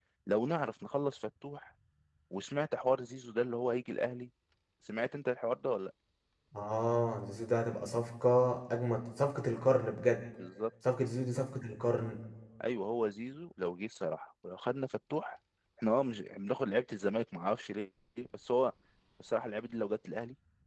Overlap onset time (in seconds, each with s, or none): none